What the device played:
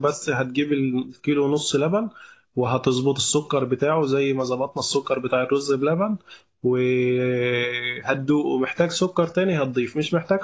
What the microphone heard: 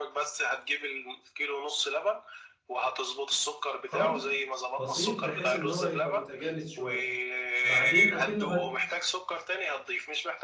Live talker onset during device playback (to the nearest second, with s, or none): 4 s